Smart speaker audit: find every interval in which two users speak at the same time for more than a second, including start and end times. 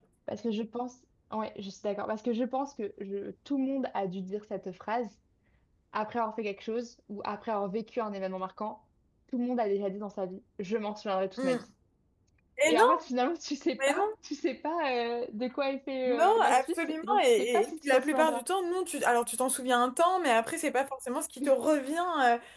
16.1-18.4

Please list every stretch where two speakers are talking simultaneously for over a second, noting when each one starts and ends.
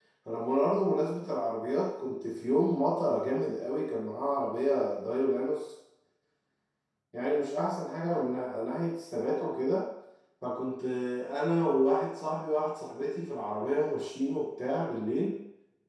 none

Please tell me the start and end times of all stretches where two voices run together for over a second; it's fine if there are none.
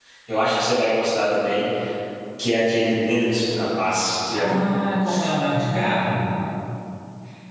none

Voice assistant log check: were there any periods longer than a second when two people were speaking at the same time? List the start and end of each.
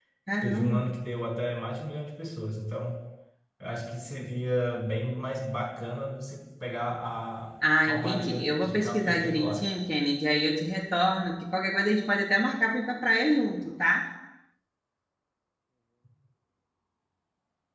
7.8-9.7

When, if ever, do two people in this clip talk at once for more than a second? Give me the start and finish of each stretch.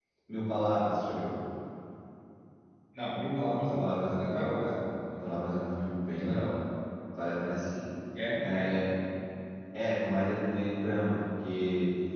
none

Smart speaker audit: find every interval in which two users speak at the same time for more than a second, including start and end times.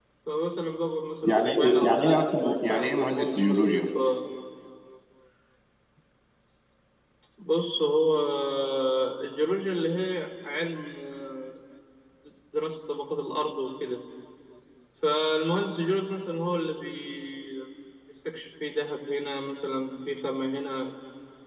1.2-3.8

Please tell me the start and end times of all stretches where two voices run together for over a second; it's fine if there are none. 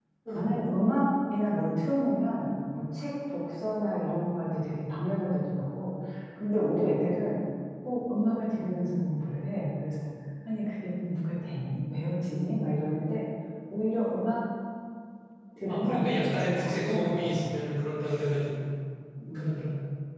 15.7-17.5

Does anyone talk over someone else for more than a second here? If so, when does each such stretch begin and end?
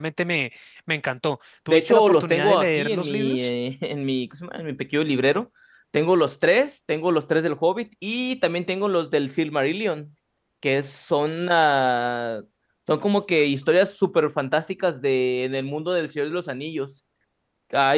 1.7-3.5

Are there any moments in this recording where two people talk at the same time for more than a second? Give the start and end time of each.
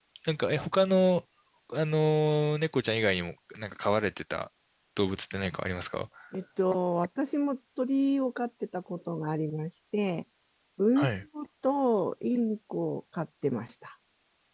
none

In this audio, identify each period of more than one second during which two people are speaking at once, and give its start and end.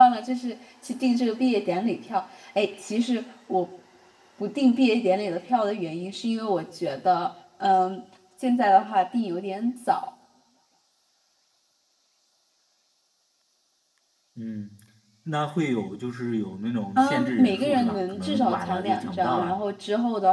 17.0-19.6

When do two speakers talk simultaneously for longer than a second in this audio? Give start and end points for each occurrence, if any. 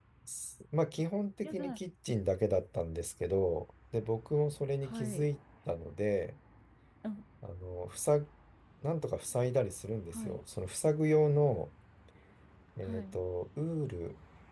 none

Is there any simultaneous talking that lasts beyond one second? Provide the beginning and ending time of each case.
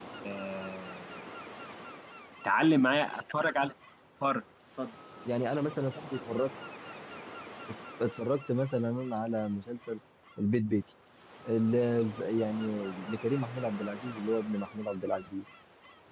none

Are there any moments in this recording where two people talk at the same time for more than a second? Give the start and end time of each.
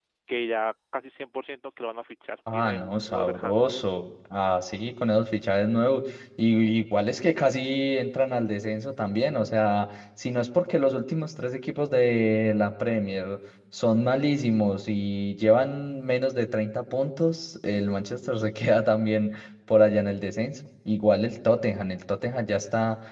2.5-3.7

